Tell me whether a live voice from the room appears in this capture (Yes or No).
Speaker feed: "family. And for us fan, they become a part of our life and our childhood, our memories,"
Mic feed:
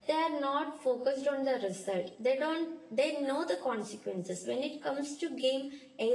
Yes